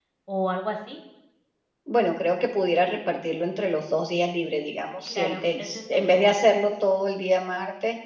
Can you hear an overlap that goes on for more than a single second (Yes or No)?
Yes